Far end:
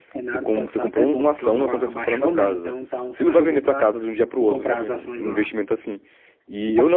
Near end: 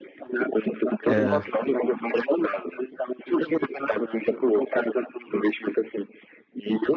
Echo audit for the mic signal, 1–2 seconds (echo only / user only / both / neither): both